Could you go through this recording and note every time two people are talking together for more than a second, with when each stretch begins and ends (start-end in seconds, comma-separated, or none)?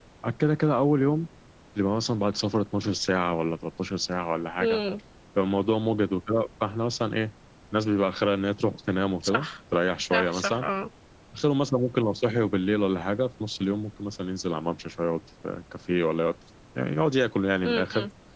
none